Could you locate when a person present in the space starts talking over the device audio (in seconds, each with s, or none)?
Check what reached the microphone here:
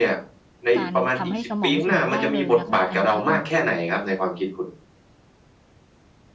0.8 s